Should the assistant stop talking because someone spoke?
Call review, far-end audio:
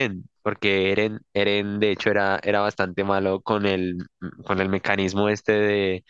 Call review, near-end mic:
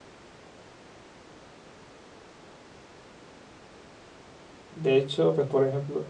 Yes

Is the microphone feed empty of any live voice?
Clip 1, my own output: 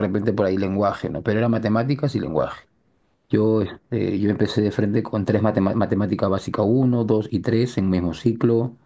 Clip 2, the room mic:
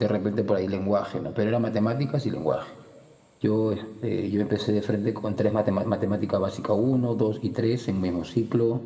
Yes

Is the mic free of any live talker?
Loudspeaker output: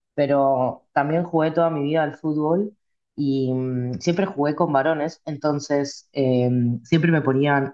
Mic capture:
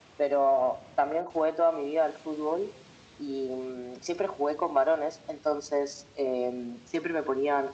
Yes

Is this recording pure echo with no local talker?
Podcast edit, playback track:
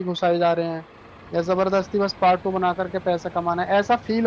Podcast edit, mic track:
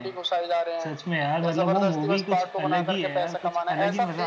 No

